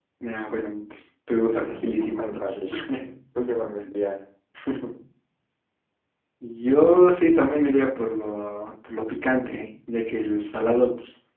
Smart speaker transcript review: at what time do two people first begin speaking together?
1.4 s

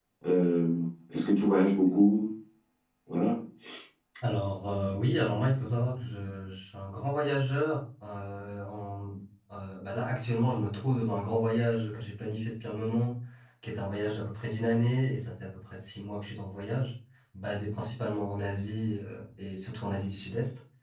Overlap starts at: none

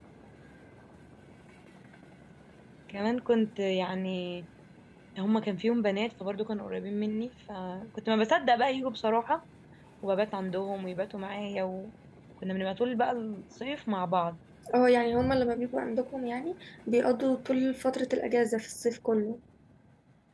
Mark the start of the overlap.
none

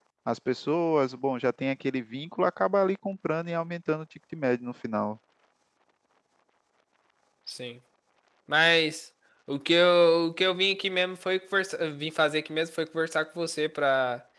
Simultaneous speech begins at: none

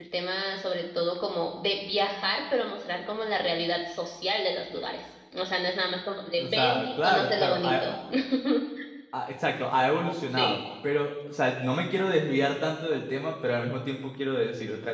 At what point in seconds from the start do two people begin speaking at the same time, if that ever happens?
6.4 s

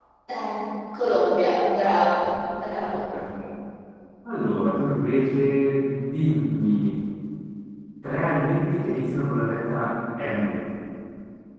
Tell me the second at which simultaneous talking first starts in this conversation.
none

